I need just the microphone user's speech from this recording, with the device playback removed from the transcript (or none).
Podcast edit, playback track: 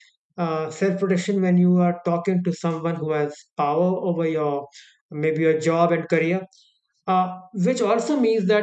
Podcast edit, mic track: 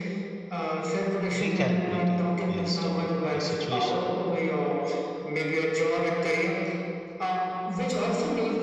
recalibrating based on the situation